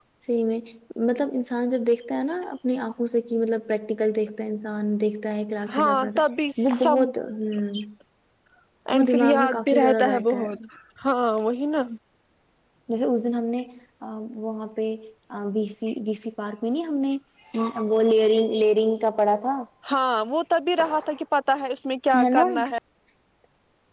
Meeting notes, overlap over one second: present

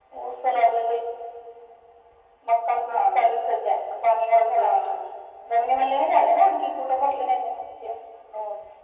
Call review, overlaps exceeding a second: none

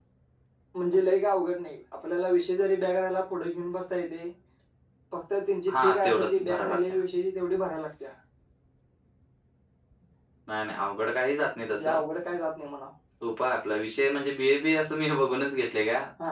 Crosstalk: present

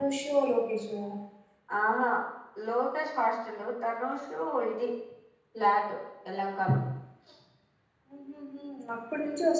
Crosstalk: none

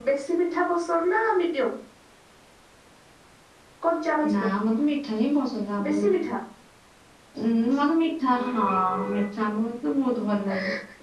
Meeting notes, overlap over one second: none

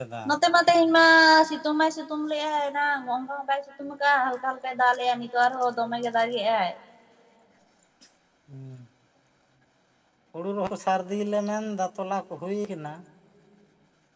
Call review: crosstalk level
none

